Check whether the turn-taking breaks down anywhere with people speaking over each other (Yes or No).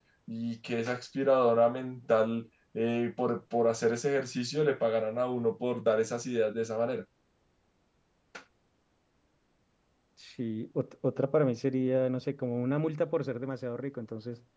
No